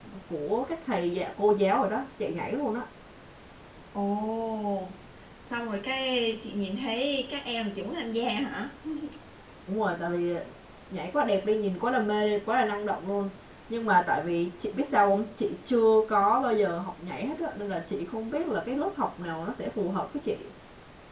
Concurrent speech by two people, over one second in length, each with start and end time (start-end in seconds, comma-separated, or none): none